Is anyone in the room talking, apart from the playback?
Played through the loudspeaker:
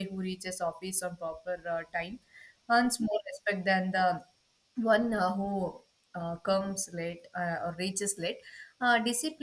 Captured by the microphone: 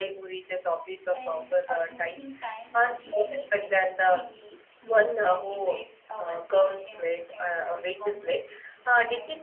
Yes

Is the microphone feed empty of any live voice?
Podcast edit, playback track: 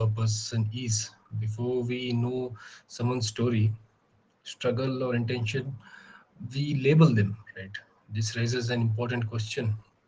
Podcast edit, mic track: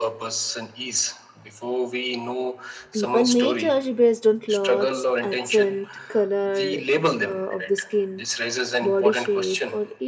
No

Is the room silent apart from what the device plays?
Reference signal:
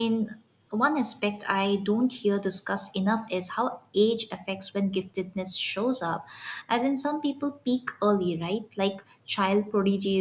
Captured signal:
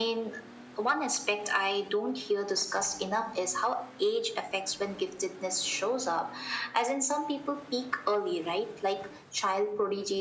Yes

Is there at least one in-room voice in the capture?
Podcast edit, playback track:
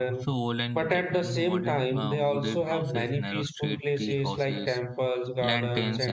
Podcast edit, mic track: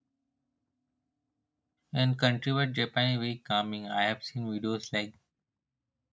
Yes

